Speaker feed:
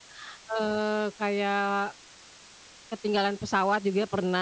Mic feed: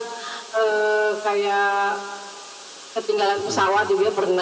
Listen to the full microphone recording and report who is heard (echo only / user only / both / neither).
both